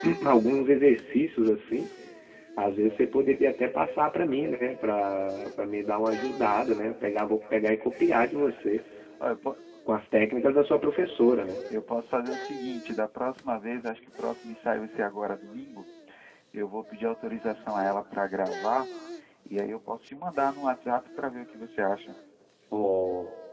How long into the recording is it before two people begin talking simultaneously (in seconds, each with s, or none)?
none